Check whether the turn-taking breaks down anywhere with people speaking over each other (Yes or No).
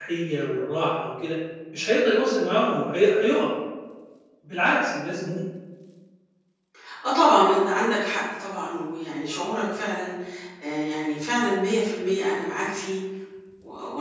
No